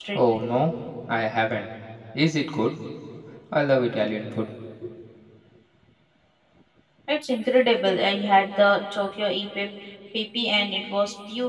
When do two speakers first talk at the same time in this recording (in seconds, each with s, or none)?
none